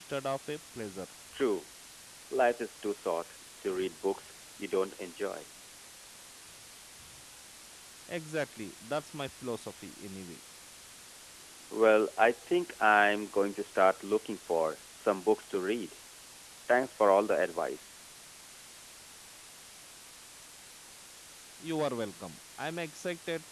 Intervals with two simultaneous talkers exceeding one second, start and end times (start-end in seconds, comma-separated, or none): none